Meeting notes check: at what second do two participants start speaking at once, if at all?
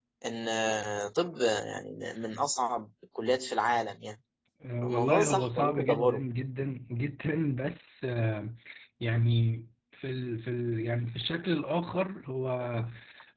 4.8 s

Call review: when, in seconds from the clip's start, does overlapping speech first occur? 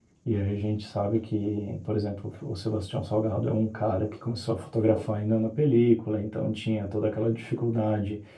none

